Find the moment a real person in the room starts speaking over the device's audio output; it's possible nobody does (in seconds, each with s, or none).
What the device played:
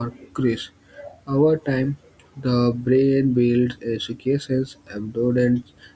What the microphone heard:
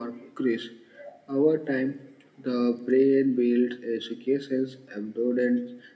none